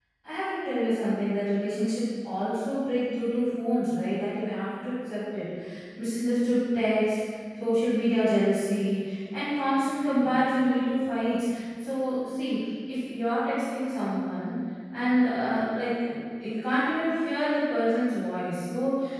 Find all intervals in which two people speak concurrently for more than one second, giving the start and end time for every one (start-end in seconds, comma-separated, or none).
none